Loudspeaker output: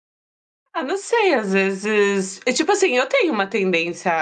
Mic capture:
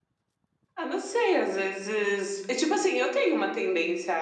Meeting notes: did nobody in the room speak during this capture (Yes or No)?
Yes